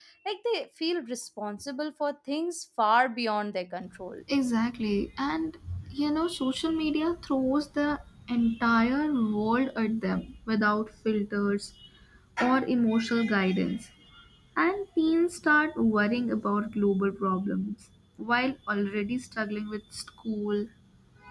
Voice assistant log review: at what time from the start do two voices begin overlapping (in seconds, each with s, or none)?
none